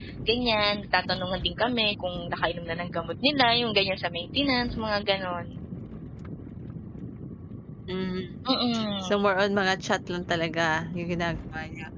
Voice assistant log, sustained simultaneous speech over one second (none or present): none